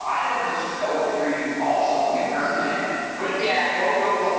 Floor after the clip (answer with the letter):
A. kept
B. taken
A